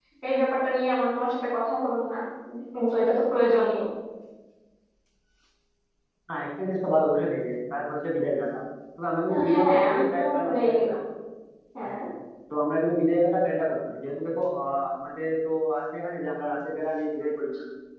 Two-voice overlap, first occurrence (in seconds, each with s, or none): 9.3 s